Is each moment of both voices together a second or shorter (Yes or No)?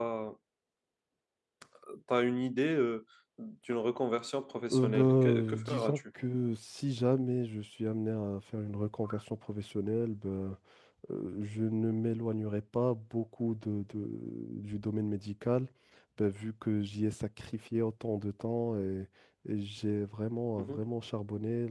No